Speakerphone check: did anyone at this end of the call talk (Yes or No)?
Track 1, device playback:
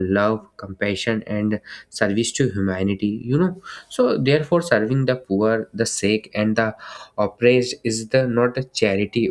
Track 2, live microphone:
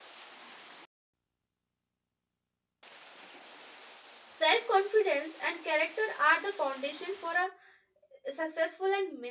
Yes